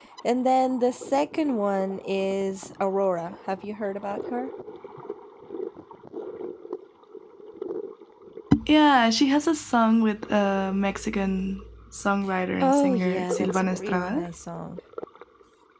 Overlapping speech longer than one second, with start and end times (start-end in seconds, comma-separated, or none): 12.6-14.3